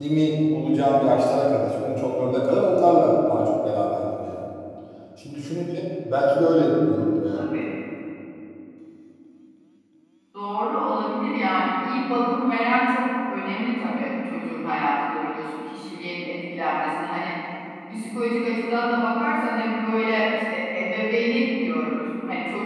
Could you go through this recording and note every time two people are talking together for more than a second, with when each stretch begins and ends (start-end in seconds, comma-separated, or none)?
none